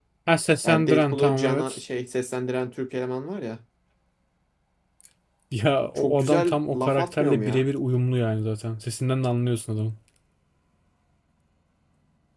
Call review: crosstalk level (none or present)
present